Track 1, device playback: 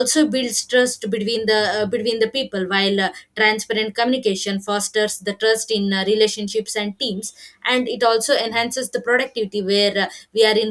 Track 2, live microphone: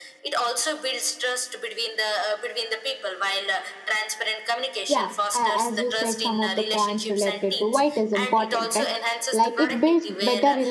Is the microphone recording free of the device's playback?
No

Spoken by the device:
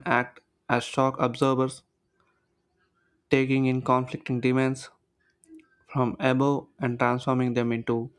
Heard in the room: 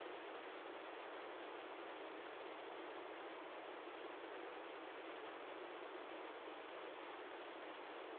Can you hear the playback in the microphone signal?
No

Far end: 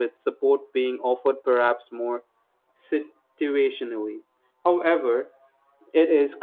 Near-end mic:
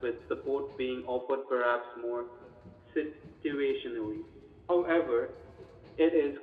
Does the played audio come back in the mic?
Yes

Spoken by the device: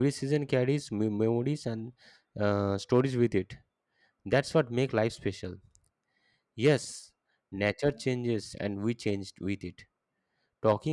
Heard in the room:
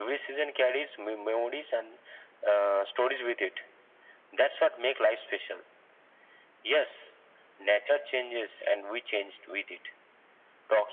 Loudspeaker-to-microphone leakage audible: Yes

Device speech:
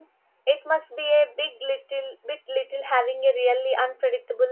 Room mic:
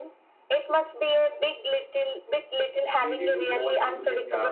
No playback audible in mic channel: No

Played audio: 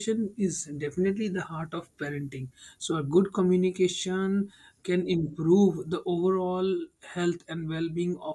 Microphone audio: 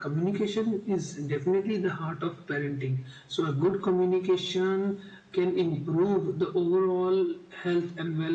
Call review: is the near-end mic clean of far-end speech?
No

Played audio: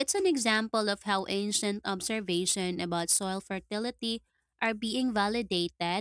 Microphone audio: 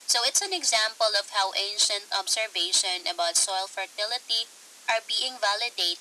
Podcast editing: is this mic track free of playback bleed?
No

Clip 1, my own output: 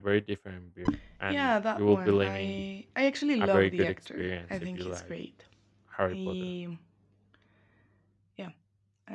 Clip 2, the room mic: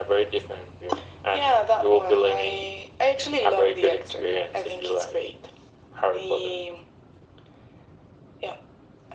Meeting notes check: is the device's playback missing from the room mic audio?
No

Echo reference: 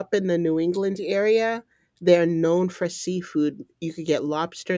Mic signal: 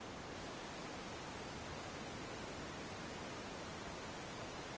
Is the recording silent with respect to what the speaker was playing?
Yes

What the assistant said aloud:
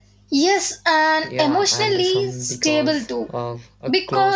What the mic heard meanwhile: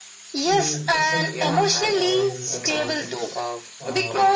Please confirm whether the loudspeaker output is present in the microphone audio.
Yes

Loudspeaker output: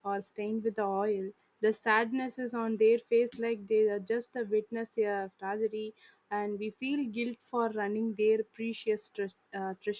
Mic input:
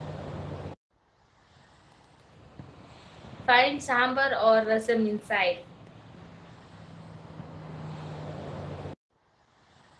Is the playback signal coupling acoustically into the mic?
No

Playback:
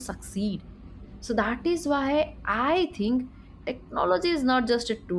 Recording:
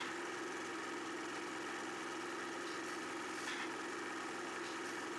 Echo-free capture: Yes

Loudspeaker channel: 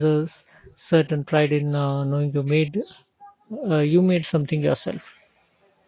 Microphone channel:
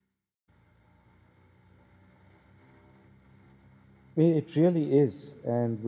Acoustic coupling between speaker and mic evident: No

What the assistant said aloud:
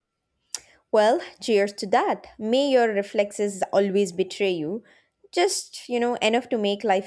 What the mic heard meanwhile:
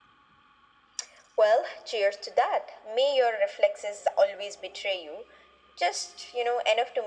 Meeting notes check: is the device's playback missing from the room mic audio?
No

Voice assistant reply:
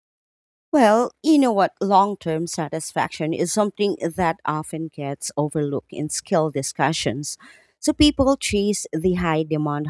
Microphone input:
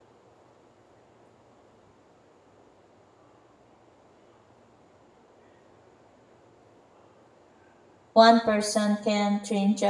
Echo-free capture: Yes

